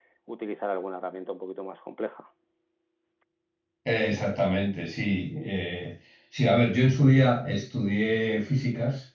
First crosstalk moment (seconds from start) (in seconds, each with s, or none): none